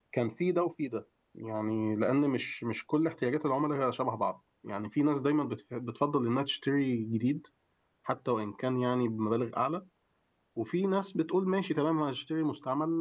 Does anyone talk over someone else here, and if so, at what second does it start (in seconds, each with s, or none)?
none